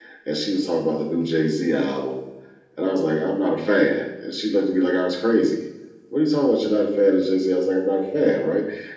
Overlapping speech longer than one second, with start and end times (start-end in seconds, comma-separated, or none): none